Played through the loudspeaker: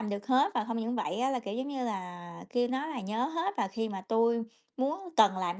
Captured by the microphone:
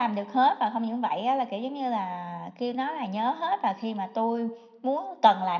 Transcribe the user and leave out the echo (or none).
none